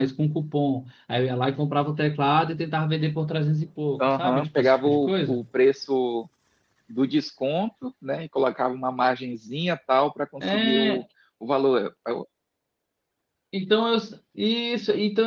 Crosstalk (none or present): present